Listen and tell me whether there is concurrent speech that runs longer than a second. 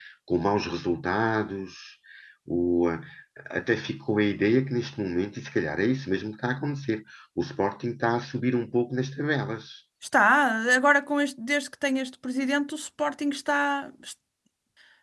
No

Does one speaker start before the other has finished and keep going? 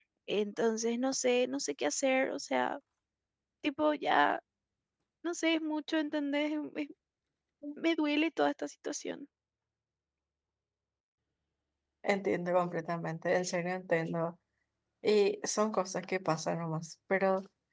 No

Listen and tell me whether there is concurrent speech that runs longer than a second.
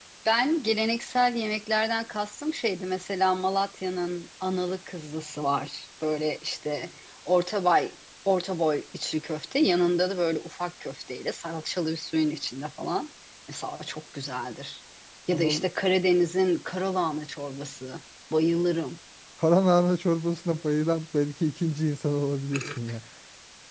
No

